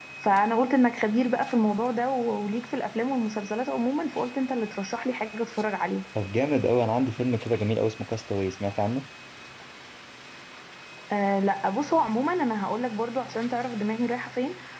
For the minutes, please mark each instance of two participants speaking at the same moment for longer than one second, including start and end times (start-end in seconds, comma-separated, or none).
none